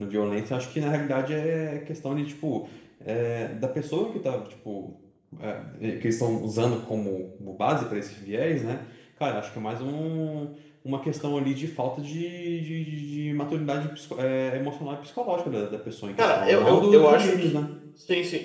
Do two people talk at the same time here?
Yes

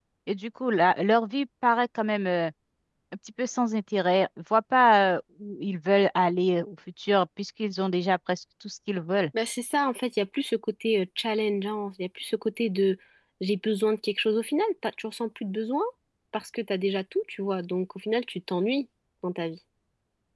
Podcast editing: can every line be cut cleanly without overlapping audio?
Yes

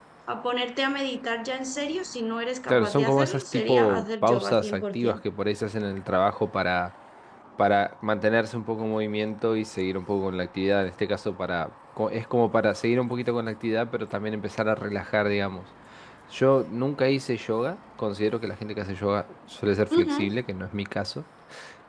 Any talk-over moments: Yes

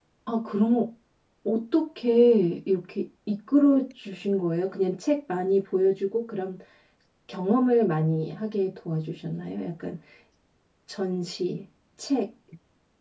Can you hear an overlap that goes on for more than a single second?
No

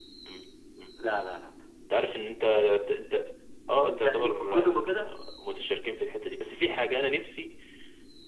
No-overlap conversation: No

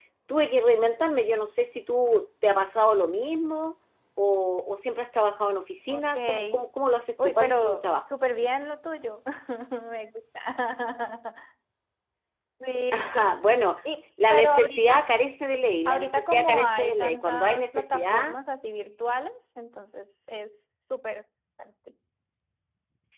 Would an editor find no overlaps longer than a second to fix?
No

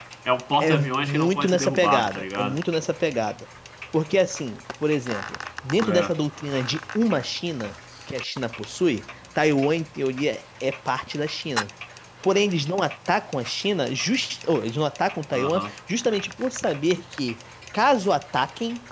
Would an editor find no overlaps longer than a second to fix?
No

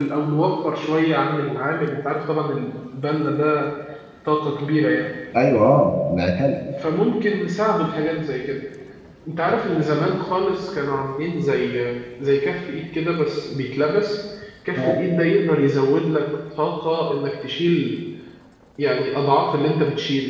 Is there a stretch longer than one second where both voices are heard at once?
No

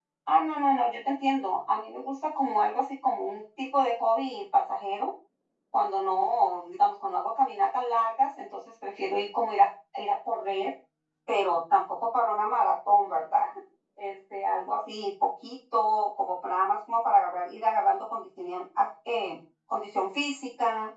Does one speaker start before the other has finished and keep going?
No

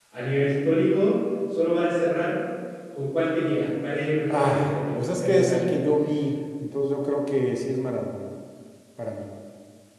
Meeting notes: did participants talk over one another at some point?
Yes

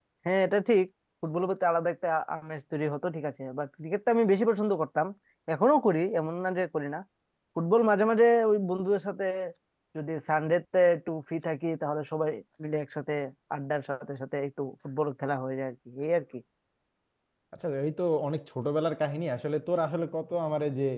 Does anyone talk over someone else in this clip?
No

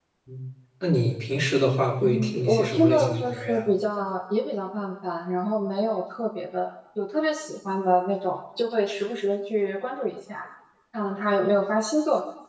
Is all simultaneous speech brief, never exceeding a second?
No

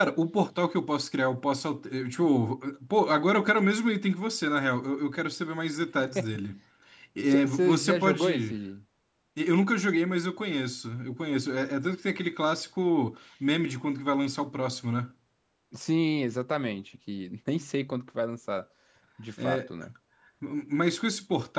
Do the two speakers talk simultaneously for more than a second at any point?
Yes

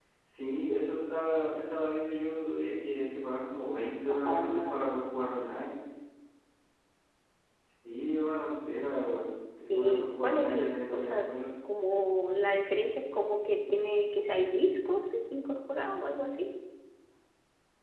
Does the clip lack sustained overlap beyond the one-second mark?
No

